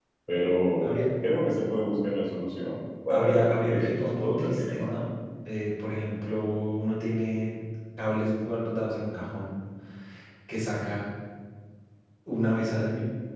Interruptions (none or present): present